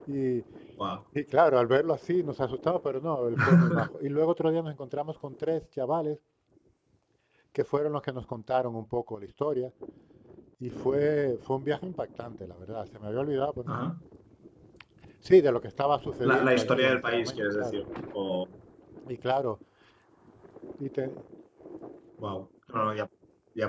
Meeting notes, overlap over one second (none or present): present